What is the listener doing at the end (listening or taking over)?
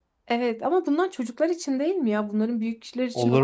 taking over